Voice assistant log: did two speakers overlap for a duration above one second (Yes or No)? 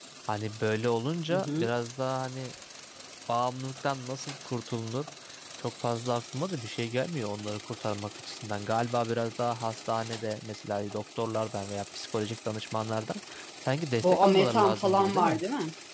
Yes